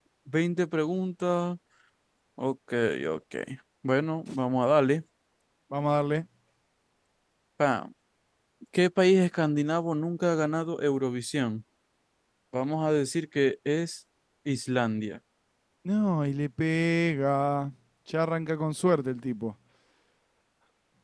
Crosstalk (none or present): none